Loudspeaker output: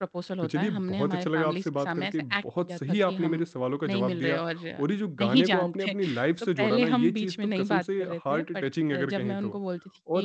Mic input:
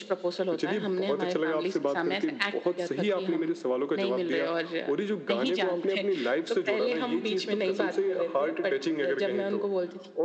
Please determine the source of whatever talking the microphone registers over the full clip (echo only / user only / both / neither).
echo only